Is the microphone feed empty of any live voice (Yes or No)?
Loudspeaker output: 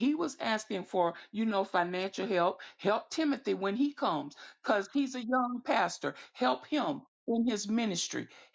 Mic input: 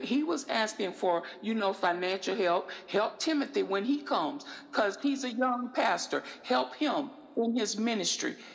Yes